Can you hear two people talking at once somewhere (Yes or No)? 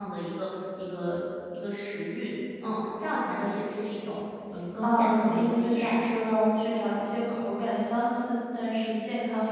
Yes